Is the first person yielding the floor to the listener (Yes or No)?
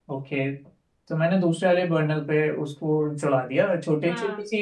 No